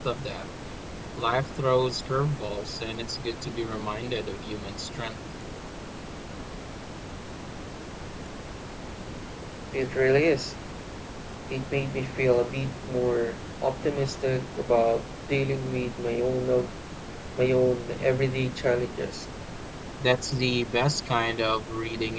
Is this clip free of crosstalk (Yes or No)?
Yes